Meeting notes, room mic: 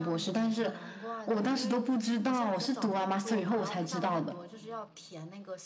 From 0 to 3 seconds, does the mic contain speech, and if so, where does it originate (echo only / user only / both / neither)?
both